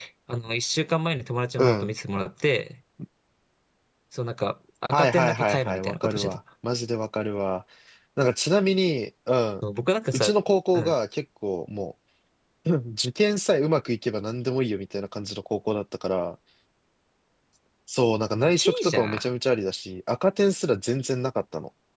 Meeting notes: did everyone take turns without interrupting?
No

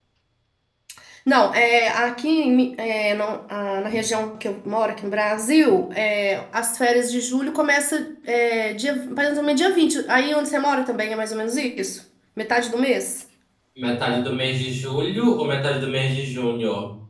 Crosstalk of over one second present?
No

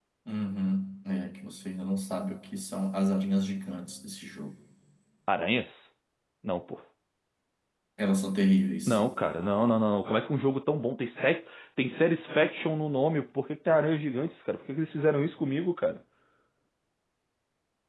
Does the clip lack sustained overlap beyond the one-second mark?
Yes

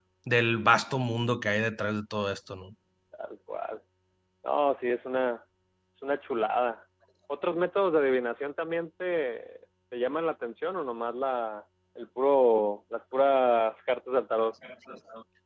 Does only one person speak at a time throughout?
Yes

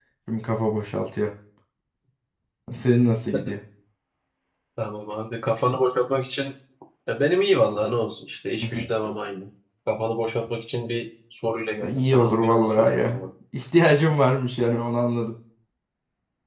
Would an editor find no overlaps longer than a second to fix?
No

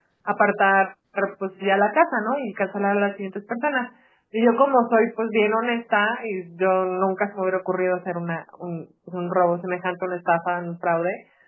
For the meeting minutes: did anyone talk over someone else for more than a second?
No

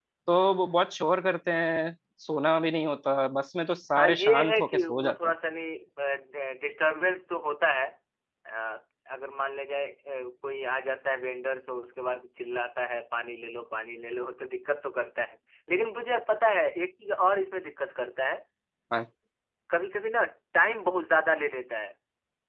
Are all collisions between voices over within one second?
No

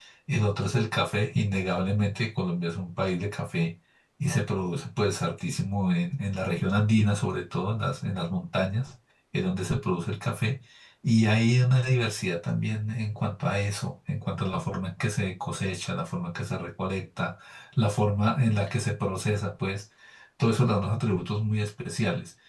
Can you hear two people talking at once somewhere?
No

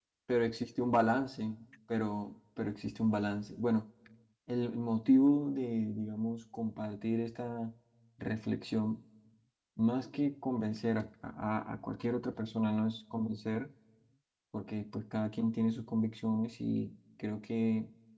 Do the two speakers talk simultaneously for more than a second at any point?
No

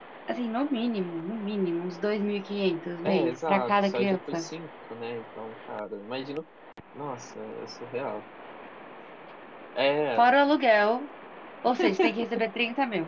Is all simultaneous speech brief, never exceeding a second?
No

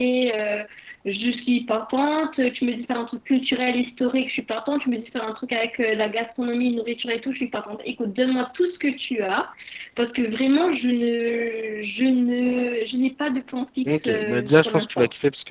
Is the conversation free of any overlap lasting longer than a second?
No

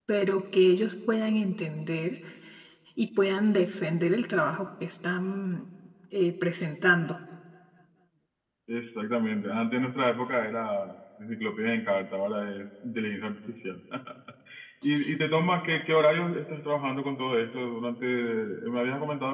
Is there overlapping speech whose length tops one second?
No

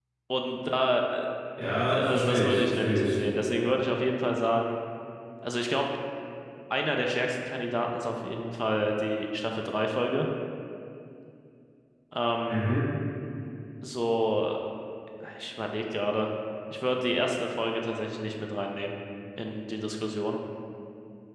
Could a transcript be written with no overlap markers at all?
No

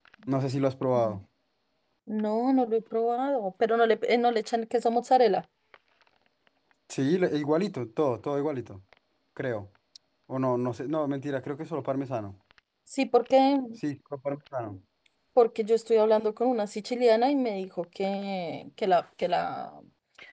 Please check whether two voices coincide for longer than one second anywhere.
No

